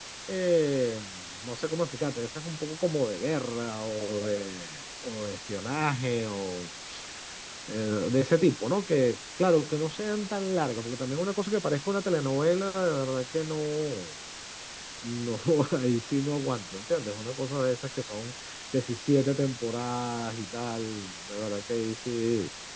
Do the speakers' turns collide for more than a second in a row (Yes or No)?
No